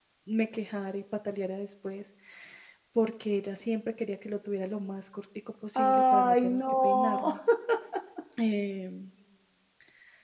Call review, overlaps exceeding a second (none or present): present